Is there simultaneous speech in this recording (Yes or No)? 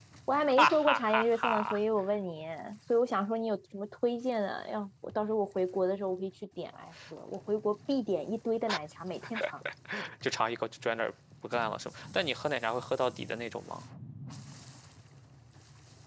Yes